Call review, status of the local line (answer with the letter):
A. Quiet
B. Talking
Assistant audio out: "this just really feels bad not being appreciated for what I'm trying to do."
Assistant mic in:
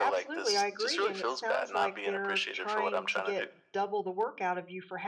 B